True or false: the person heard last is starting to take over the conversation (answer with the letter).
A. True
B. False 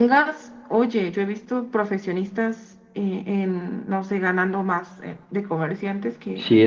B